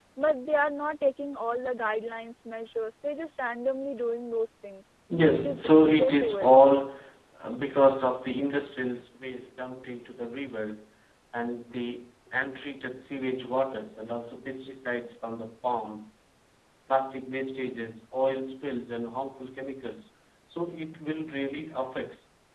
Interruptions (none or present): present